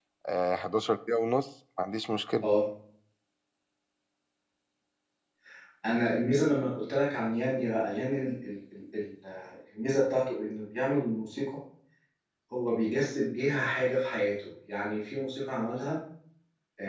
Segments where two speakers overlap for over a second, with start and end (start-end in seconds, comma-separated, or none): none